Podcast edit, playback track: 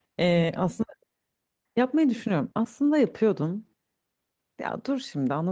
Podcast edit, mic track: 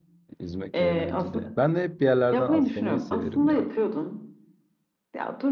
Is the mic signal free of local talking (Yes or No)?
No